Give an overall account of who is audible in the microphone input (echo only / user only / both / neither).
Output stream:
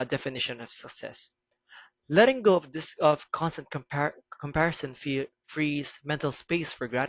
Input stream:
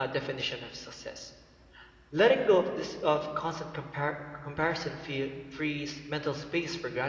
echo only